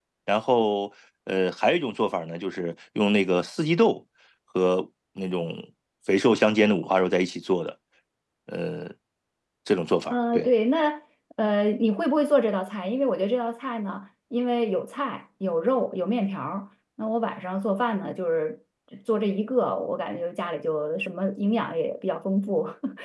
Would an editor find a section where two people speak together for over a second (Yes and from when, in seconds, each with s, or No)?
No